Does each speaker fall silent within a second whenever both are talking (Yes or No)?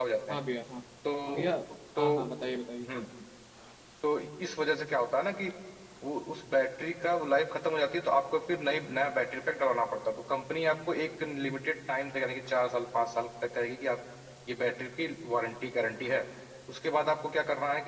Yes